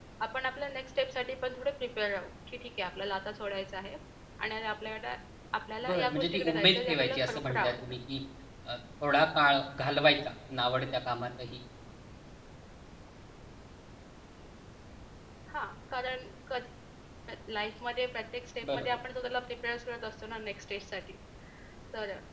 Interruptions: present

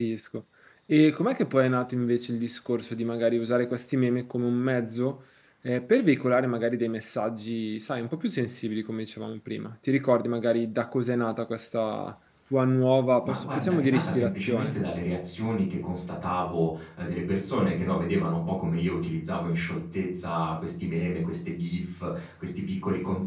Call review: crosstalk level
present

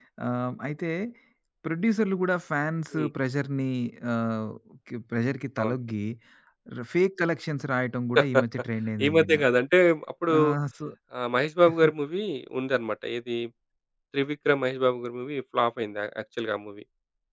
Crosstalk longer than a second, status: none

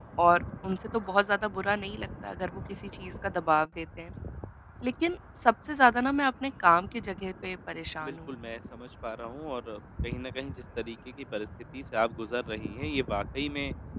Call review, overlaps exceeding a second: none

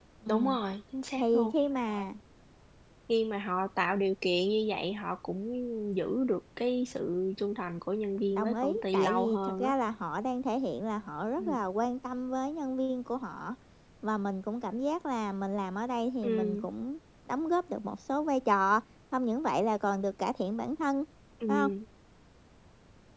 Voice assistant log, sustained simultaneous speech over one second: present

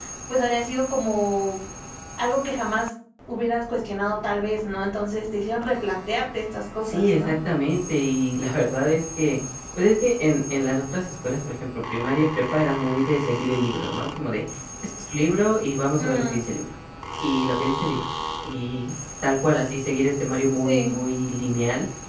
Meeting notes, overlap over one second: none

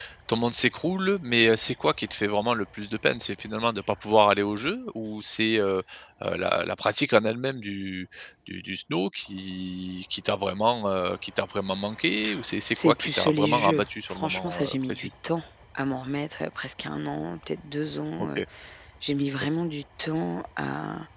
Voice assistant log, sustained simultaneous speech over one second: present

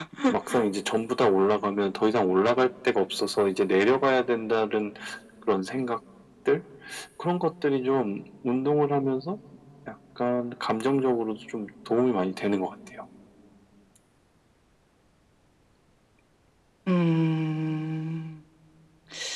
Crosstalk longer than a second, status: none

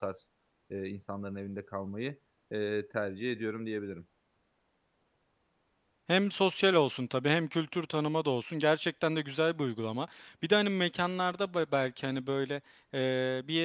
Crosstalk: none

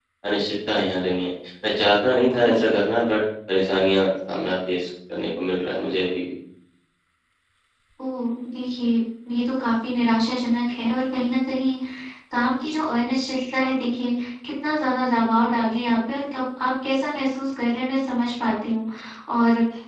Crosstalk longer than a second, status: none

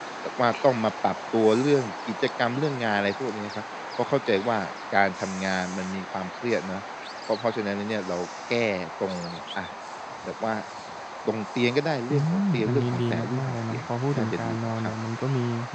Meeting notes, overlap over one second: present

